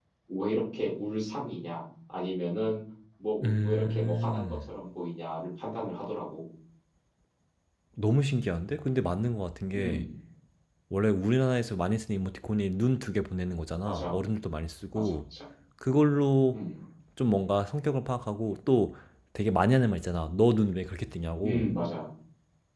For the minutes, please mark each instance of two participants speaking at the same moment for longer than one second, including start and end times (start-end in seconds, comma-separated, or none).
3.4-4.7